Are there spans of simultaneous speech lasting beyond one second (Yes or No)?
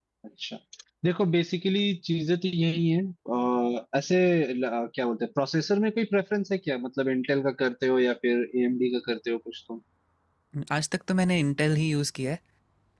No